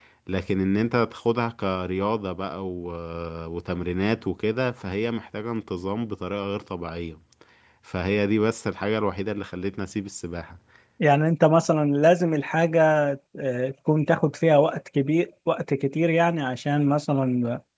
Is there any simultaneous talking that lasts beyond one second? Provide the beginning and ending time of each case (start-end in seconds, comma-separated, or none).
none